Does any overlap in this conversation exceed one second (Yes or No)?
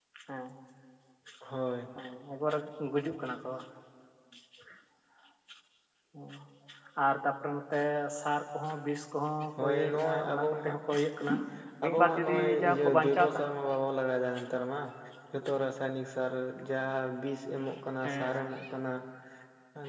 Yes